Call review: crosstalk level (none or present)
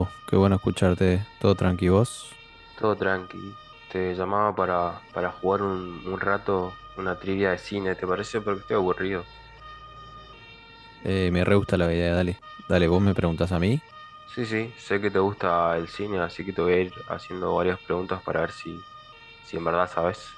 none